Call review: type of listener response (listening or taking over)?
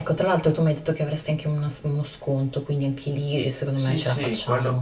taking over